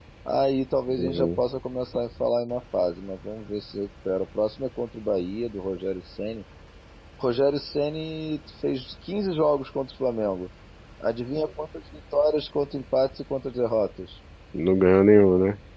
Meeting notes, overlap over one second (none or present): none